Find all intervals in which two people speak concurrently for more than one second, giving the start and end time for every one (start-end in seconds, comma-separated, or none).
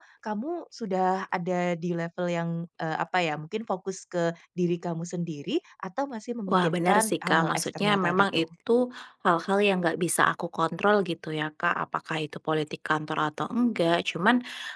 6.5-8.4